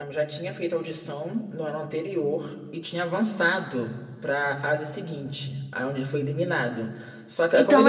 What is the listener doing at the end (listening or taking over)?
taking over